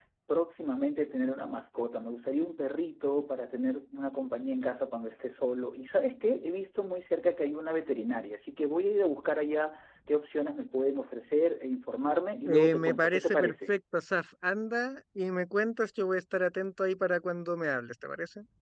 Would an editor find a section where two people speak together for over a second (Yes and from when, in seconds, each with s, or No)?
Yes, from 12.4 s